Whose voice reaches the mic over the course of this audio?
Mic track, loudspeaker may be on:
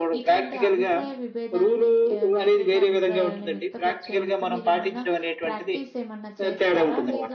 both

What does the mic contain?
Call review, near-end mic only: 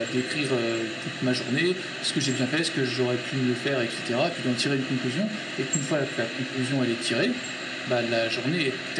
echo only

